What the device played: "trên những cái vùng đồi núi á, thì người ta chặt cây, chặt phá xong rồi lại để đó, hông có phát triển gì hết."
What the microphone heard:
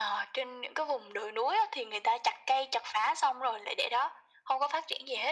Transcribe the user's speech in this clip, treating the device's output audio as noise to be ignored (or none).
none